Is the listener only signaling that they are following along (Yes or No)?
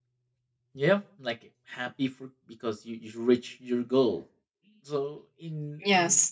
Yes